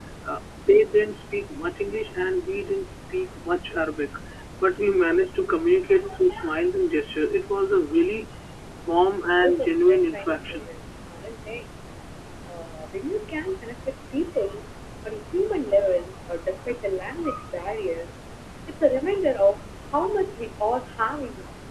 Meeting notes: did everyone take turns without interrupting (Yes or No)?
No